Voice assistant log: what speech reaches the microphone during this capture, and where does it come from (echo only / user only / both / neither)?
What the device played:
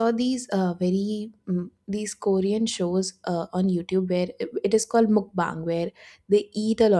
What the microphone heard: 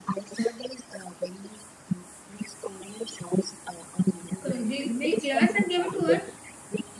both